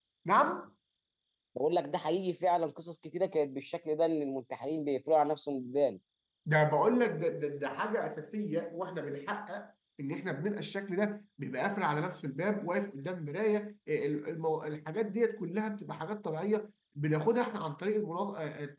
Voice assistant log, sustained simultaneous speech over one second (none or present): none